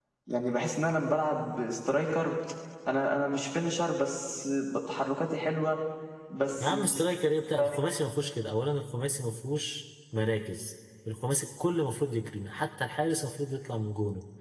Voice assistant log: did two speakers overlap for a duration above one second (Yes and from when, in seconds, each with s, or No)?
No